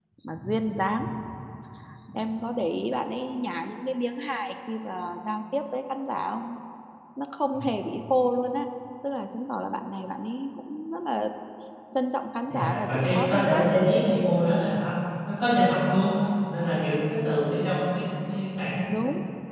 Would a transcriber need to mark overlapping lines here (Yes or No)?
Yes